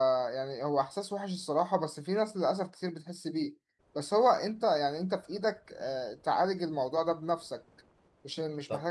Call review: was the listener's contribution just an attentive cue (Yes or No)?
No